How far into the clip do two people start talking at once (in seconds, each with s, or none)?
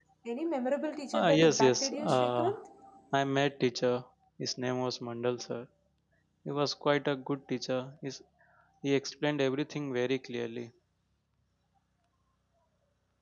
1.2 s